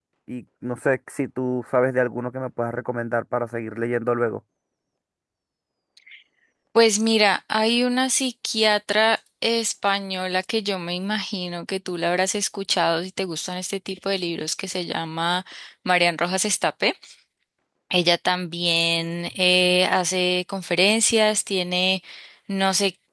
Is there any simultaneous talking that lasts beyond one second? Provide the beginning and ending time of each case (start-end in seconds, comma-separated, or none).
none